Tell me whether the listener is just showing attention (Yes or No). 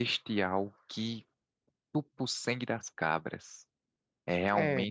Yes